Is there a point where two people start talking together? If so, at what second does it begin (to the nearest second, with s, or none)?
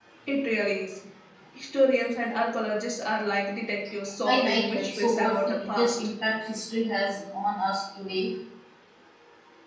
4 s